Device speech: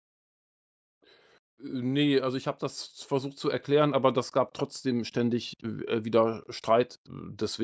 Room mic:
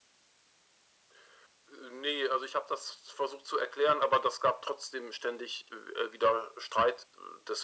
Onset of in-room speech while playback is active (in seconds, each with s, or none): none